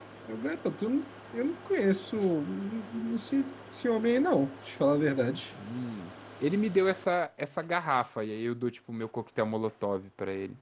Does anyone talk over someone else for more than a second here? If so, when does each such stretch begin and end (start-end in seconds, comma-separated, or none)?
none